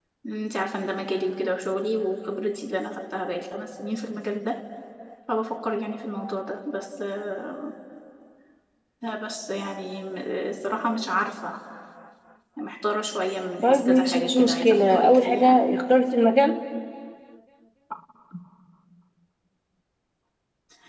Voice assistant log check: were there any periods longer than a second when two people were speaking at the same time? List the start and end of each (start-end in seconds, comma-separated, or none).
13.6-15.6